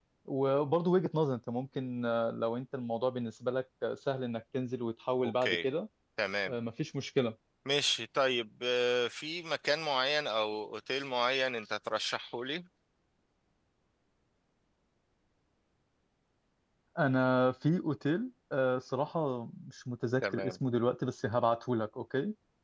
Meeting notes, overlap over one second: none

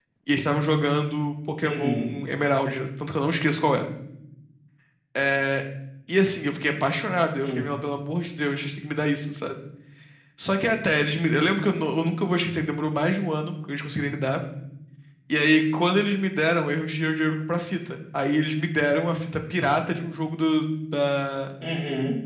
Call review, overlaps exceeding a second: none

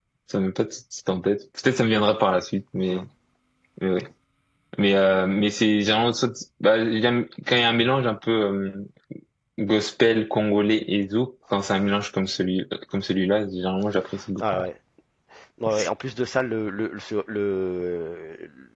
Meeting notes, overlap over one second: none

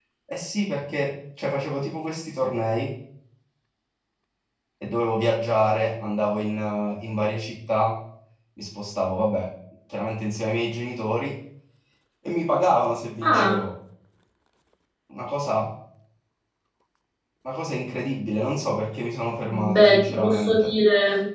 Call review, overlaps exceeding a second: present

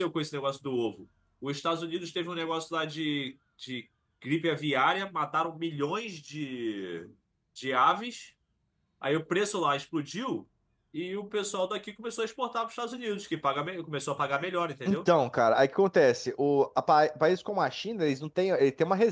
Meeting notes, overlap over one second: none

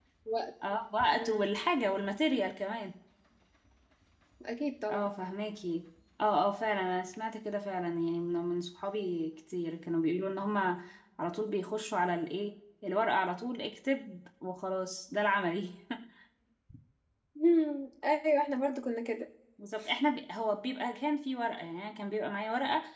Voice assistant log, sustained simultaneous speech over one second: none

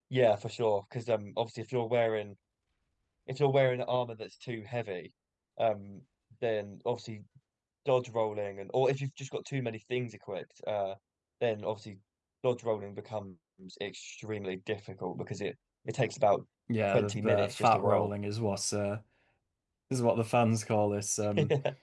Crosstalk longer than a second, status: present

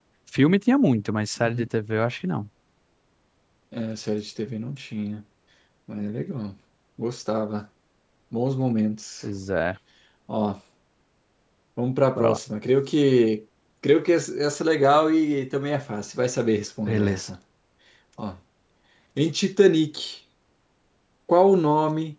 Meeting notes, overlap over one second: none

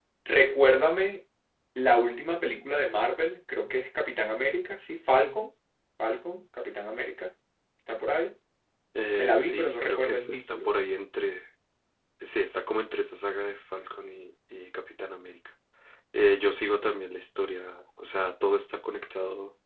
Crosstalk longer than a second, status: present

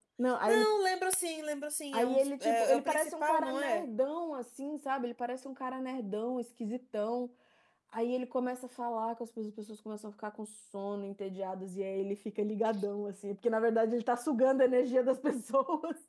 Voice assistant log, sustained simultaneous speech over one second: present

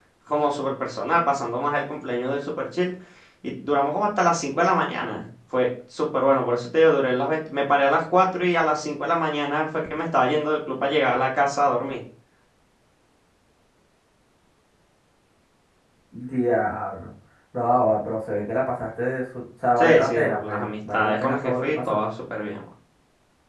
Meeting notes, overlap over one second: present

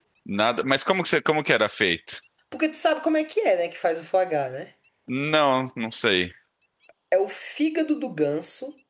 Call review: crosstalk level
none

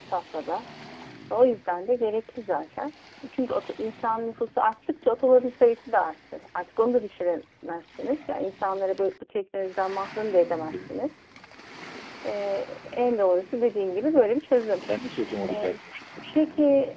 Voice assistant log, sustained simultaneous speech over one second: none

